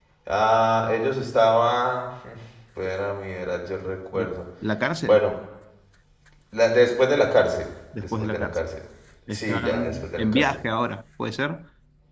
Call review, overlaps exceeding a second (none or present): present